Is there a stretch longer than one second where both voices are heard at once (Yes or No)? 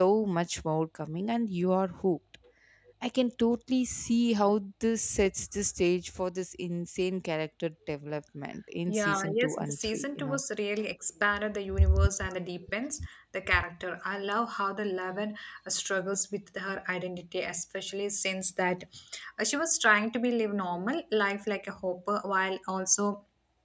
Yes